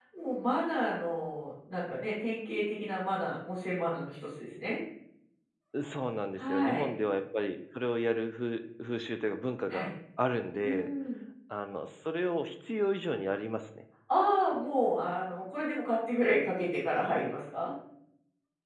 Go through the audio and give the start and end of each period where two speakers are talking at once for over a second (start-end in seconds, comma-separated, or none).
none